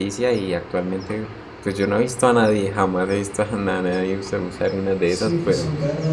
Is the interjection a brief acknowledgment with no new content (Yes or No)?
No